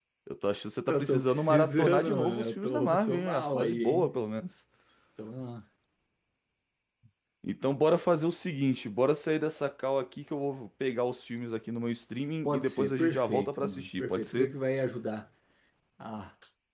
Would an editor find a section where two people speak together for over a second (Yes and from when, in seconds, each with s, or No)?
Yes, from 0.9 s